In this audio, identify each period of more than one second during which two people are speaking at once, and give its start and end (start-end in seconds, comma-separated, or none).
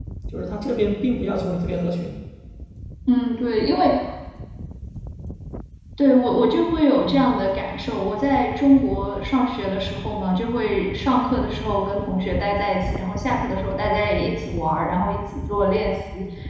none